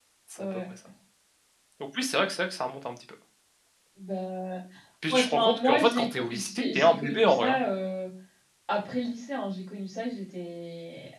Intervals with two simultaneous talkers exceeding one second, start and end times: 5.1-7.6

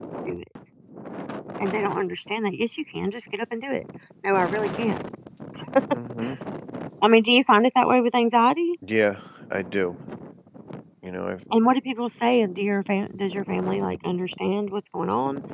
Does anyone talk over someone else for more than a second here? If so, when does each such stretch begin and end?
none

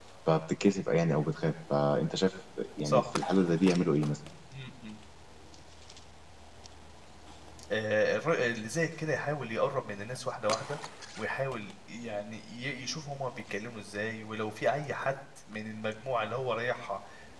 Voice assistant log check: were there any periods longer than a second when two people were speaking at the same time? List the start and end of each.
none

